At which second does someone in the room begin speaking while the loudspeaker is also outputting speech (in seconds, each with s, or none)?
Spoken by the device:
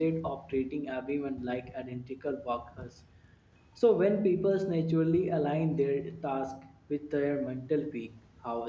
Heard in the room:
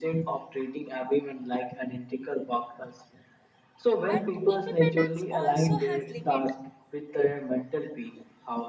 4.0 s